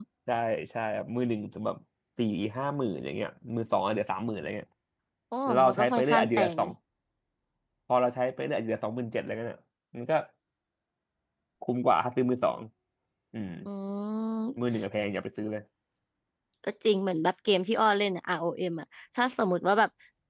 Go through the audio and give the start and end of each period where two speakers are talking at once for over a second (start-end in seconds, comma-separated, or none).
5.5-6.7